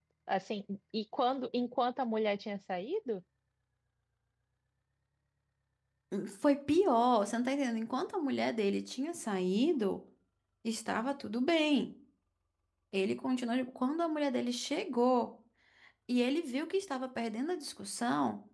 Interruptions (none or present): none